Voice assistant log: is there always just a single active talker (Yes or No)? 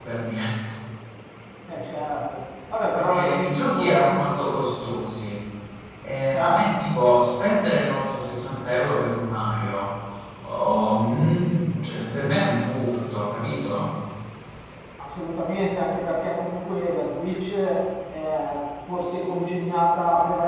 No